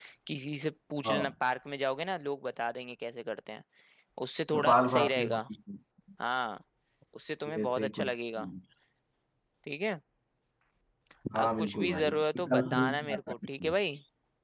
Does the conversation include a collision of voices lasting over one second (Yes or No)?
Yes